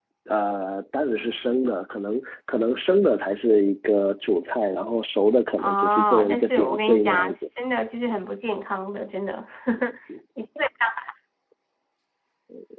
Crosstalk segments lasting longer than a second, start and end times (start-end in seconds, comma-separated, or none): 5.5-7.5